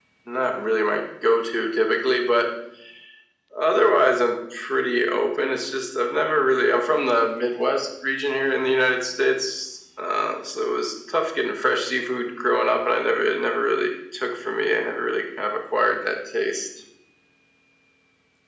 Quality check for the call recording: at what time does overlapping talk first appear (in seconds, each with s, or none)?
none